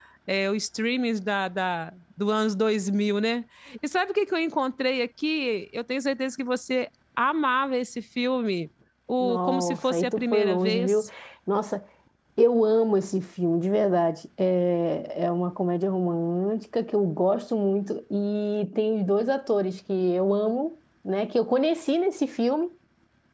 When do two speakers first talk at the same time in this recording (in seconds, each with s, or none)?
9.2 s